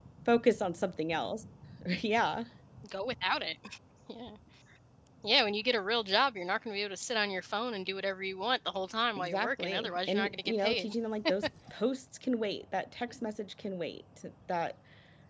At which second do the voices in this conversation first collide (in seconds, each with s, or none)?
9.2 s